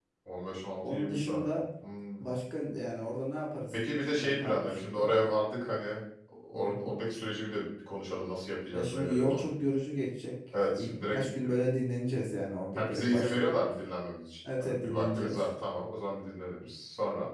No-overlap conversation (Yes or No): No